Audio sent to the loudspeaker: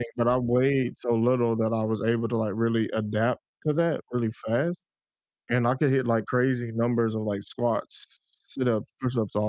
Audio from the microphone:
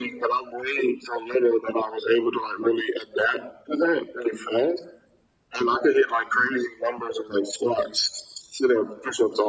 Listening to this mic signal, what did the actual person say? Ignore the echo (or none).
none